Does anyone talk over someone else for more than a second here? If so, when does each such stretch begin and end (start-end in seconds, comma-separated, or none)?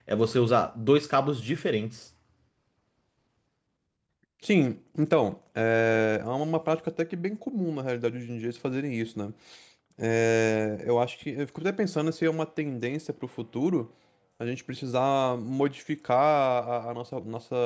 none